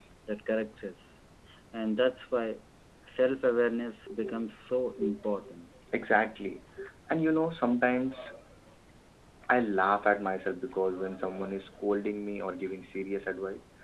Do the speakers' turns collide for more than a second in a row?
No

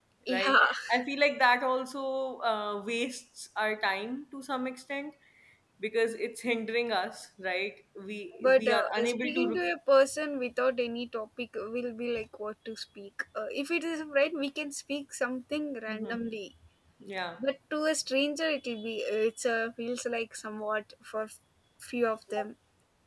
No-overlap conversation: No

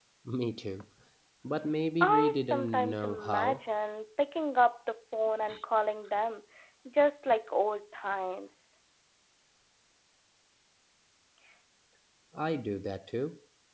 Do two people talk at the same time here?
Yes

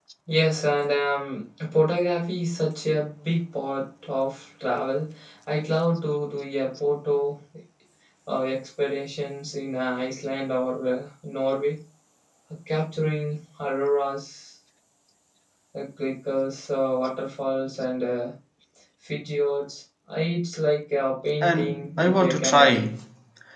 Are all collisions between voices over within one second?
No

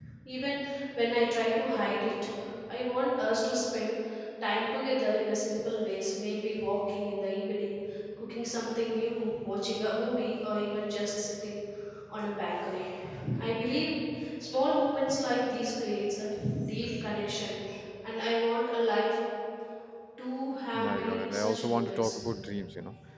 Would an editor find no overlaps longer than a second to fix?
No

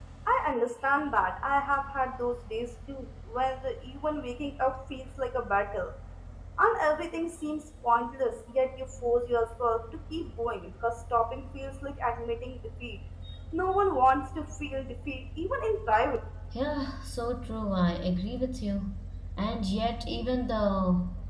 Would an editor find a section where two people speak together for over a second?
No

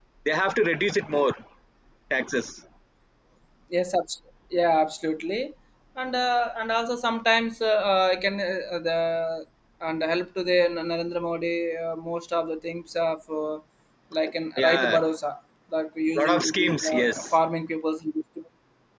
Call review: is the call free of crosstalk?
No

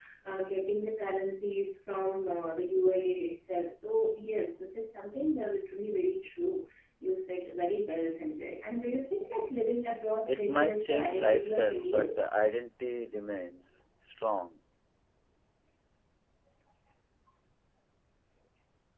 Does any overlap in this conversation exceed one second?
Yes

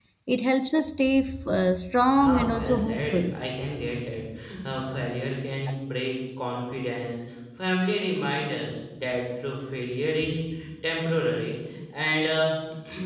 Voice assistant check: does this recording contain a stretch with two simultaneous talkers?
Yes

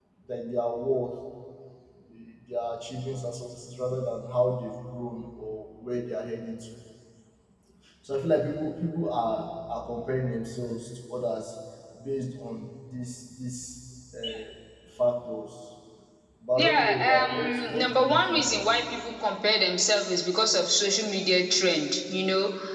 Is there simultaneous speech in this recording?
Yes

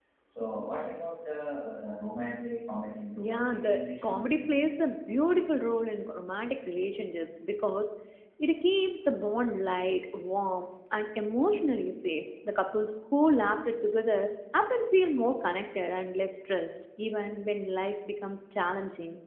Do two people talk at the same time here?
Yes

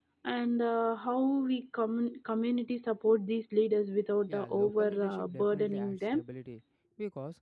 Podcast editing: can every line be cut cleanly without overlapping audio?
No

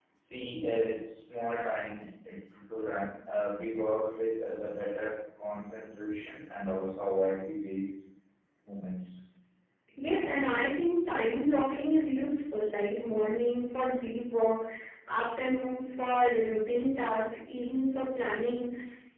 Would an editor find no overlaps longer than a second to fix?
Yes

